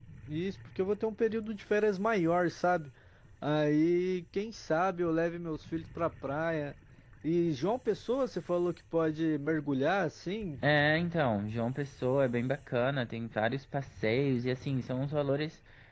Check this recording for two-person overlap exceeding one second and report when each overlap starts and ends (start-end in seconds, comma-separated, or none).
none